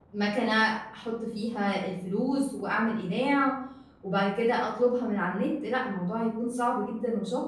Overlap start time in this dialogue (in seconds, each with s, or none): none